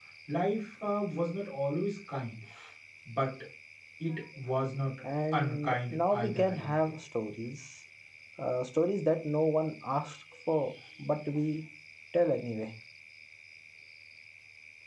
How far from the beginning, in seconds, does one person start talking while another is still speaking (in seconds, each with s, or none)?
5.3 s